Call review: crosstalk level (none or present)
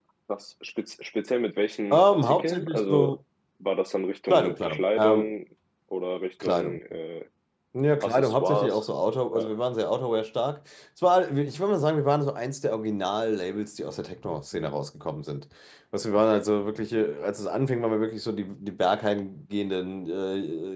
present